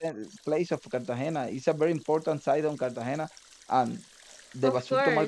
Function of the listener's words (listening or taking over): listening